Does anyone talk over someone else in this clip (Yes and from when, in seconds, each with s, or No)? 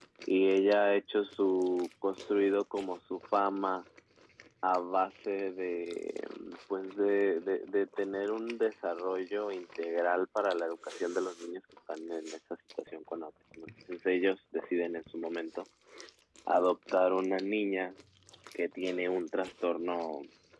No